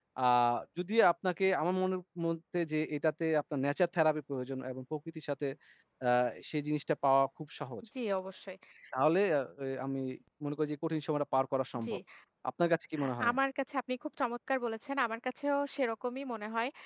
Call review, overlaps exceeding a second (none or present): none